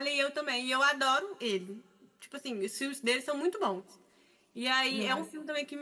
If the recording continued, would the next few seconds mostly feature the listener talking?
No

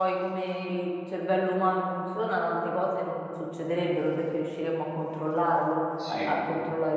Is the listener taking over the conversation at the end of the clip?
No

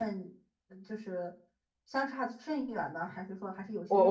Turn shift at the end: Yes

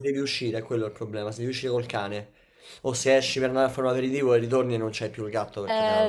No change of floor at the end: No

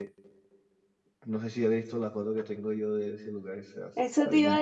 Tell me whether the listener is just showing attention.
No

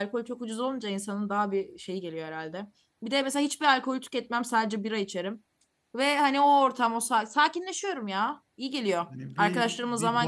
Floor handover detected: Yes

